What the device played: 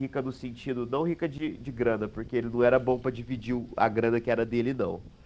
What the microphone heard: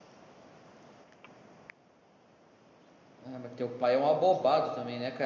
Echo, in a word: none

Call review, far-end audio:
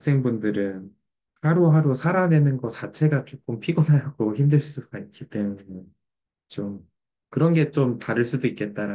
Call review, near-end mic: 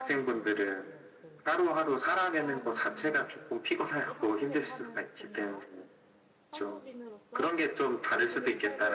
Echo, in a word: present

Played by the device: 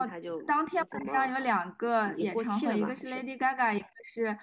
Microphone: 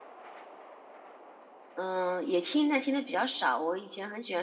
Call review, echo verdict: none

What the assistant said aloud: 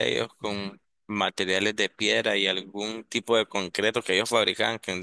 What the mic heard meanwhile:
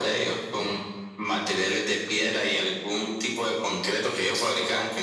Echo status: present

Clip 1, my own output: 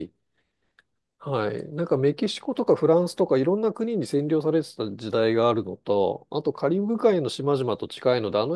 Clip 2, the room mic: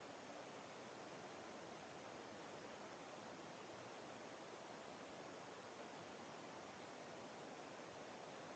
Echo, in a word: none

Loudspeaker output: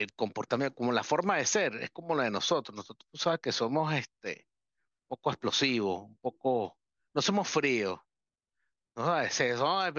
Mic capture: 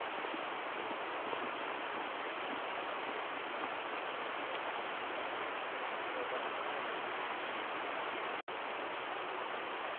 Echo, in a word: none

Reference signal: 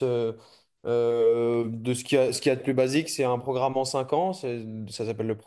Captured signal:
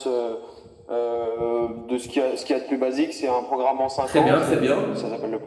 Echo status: present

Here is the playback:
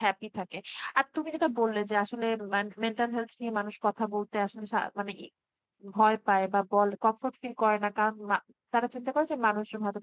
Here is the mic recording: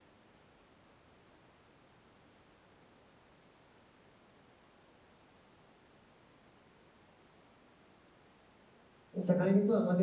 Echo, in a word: none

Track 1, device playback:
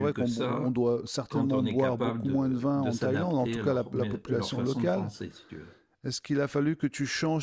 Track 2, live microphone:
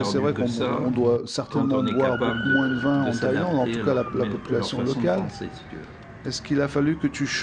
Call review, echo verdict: present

